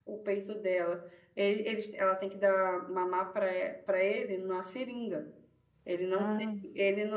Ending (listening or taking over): listening